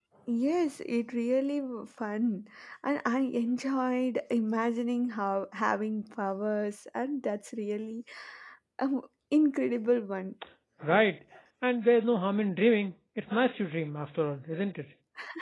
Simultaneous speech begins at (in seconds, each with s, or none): none